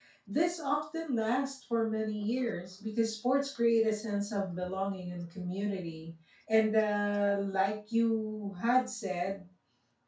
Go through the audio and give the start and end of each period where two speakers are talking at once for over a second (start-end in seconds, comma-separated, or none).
none